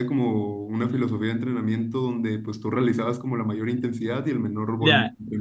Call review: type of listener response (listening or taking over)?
taking over